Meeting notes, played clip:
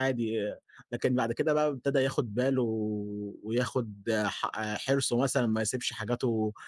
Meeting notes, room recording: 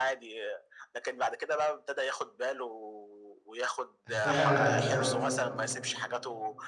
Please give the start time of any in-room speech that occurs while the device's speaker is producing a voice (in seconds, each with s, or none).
4.1 s